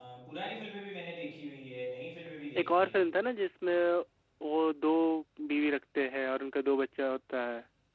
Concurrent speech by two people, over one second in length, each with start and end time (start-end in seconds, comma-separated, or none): none